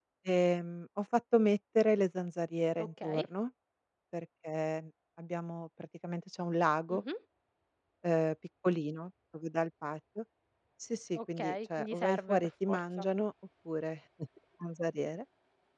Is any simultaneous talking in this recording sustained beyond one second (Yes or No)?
Yes